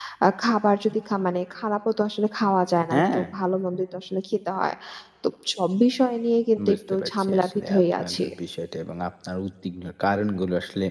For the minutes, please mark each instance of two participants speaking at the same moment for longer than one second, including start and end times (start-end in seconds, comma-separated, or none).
6.7-8.2